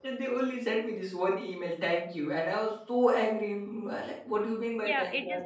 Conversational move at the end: taking over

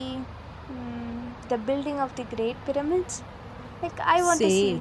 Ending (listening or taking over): taking over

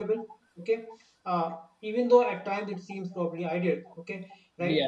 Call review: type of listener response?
listening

